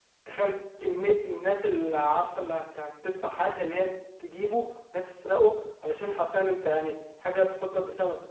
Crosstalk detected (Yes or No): No